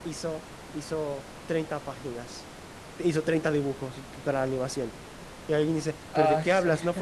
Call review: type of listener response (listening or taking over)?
listening